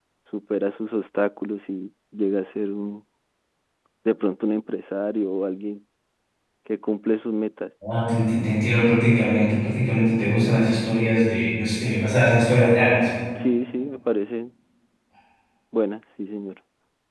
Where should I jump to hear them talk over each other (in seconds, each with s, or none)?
none